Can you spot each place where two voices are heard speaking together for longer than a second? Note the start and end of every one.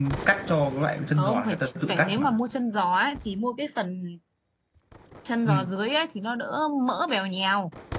1.1-2.4

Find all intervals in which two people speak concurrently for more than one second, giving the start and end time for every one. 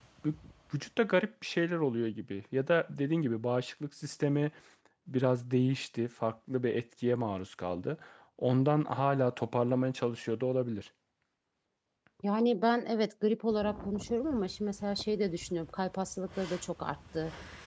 none

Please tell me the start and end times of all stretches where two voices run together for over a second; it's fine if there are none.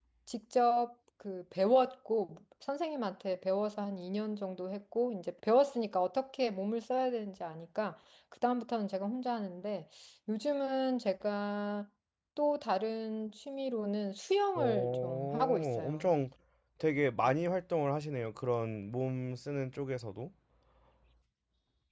14.6-16.1

